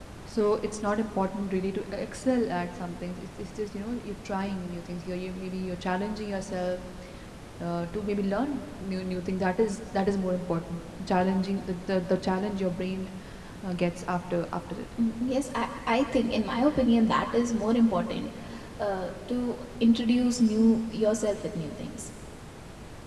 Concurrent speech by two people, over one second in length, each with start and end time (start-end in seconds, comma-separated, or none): none